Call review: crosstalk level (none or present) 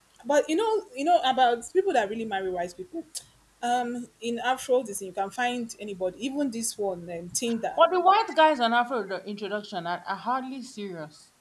none